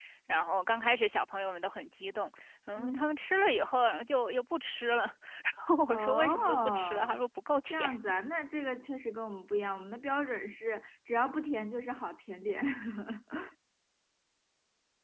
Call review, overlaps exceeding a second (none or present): present